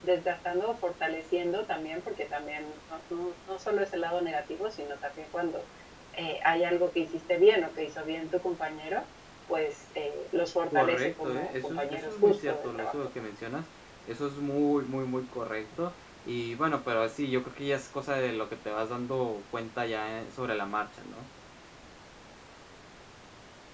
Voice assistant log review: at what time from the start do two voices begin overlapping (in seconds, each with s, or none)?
10.7 s